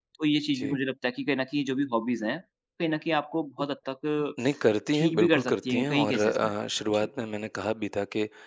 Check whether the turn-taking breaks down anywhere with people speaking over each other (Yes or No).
Yes